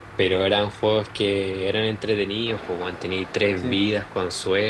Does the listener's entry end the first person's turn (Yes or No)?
No